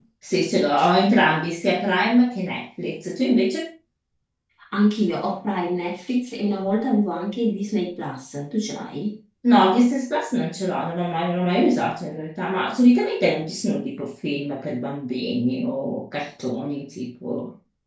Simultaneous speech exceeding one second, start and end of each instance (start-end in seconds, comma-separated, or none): none